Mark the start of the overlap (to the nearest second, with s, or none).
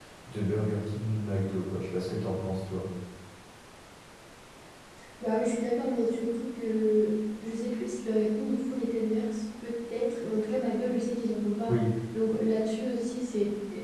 none